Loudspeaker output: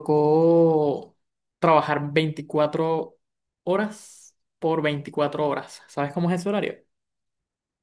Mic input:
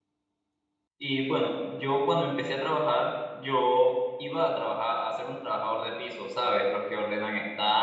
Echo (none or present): none